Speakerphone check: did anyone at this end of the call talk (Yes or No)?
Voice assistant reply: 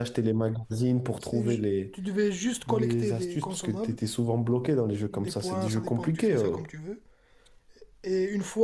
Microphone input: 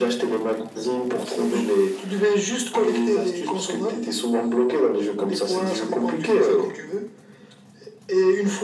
No